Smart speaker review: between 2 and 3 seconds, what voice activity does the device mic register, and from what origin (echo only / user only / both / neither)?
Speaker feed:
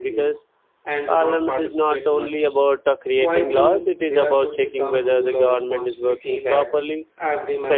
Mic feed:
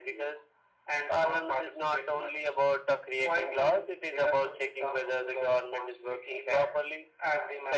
echo only